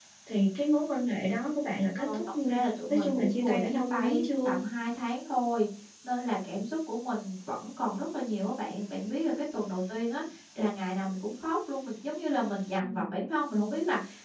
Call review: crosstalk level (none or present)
present